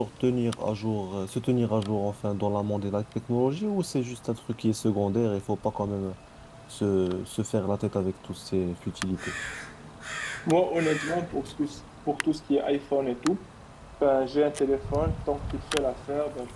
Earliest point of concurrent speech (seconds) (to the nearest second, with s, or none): none